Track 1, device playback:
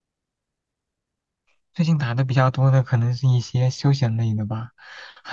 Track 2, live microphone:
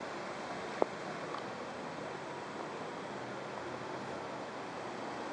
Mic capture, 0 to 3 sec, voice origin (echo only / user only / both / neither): neither